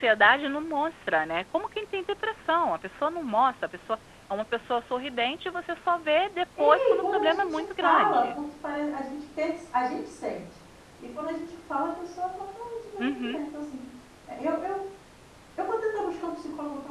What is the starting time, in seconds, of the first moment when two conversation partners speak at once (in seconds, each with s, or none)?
6.6 s